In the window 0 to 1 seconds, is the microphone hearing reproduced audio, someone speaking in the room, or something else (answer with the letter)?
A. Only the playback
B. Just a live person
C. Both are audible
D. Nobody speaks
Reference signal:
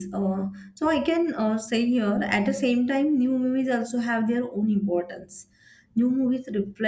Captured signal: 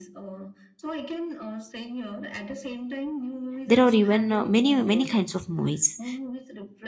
A